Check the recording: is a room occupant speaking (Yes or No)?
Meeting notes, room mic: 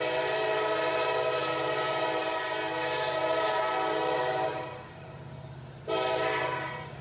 No